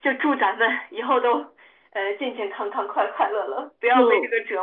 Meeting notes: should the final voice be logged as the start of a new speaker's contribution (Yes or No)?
Yes